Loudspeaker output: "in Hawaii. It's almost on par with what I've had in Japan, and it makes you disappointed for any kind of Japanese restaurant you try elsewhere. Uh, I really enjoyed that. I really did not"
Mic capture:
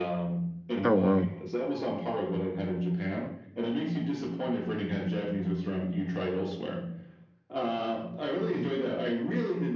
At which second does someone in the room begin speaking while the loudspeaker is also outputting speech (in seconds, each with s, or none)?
0.8 s